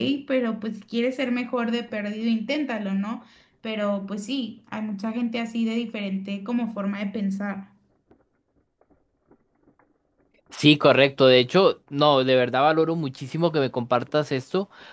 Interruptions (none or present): none